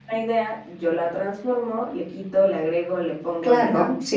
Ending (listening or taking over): taking over